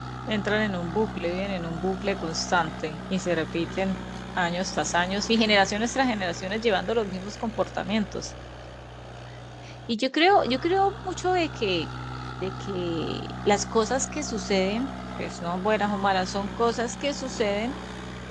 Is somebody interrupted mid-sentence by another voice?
No

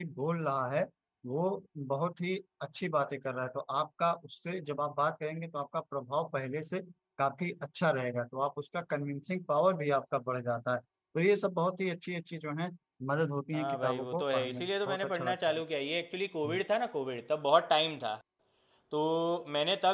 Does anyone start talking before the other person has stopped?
Yes, from 13.5 s

